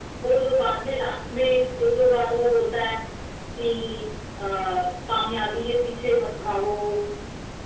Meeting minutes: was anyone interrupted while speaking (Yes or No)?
No